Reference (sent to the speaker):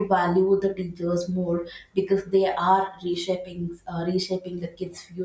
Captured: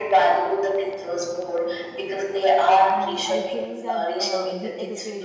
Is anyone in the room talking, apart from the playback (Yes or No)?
Yes